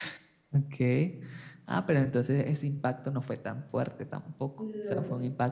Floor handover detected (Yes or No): No